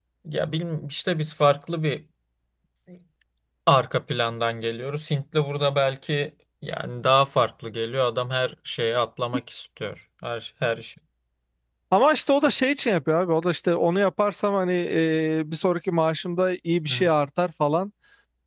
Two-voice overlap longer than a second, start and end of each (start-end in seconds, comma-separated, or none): none